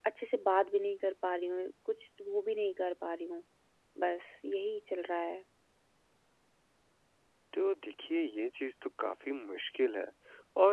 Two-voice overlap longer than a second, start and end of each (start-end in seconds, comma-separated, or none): none